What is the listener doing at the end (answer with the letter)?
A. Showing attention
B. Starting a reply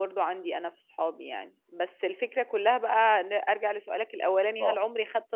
A